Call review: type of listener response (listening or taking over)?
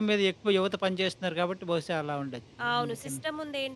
taking over